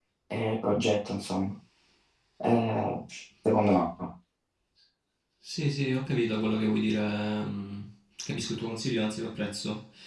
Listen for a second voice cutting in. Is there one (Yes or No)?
No